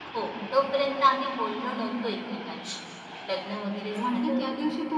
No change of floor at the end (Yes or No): No